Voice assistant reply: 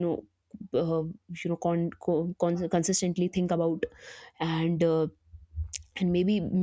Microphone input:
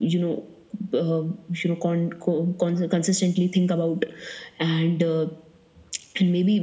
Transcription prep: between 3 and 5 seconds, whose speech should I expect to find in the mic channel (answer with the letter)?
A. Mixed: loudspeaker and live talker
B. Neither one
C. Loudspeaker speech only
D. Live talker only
C